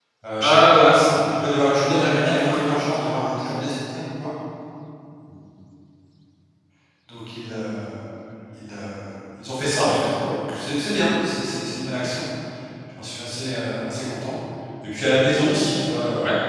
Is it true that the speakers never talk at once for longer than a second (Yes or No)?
No